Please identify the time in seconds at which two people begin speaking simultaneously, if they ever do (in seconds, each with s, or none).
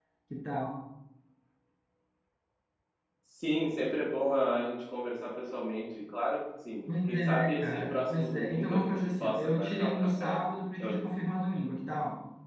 6.9 s